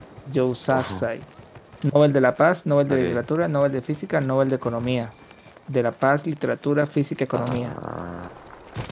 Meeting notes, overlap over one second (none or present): none